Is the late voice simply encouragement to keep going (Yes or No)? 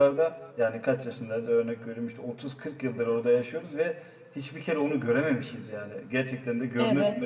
No